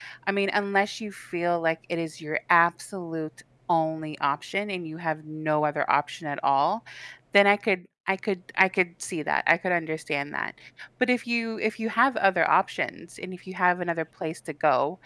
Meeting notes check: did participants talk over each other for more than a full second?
No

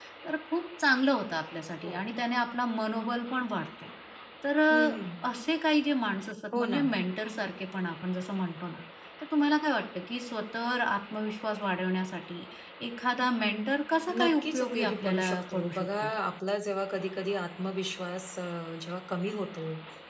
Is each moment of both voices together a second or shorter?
No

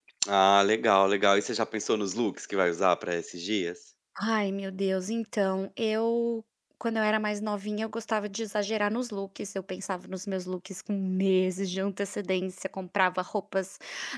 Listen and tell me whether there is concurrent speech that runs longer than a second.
No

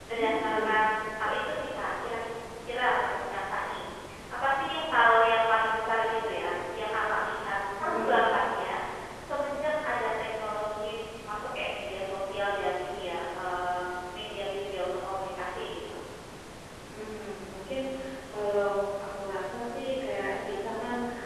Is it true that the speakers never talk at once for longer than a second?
Yes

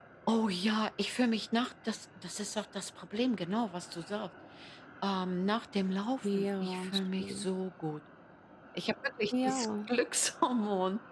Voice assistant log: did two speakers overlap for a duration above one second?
Yes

